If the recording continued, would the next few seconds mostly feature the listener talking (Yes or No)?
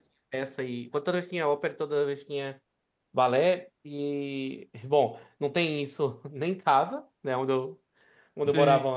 No